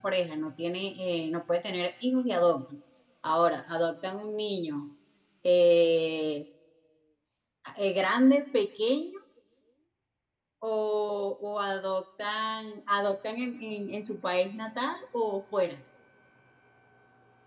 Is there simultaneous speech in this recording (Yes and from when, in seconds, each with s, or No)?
No